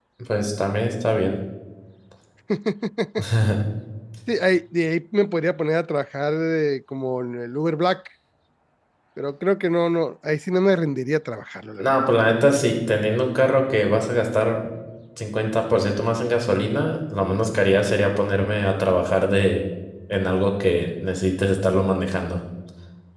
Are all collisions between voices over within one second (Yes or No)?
Yes